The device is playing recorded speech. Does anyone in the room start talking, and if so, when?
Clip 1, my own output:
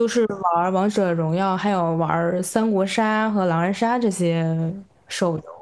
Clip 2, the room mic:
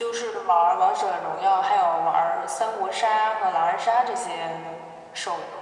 none

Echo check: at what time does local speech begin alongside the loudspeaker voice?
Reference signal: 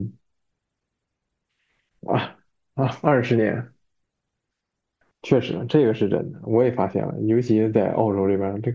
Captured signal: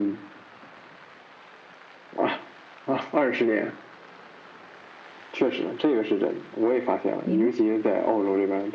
7.2 s

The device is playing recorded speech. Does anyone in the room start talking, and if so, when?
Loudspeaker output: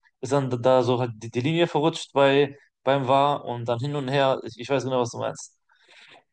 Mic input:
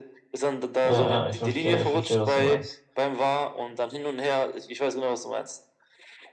0.8 s

